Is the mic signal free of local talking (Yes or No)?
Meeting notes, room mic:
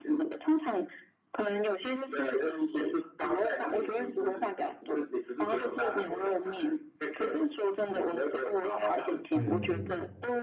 No